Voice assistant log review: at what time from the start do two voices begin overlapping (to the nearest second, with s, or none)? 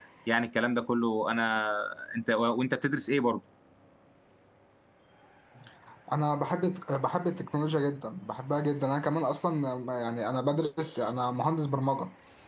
none